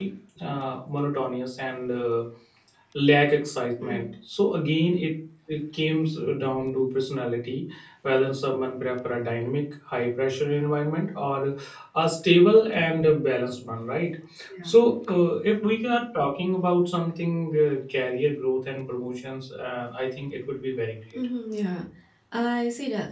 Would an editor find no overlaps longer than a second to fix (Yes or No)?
Yes